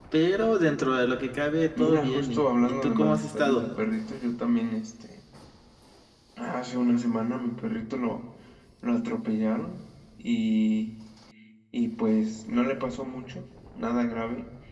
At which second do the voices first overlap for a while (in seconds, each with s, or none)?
1.8 s